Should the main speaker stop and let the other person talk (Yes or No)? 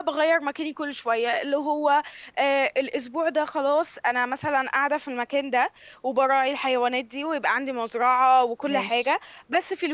No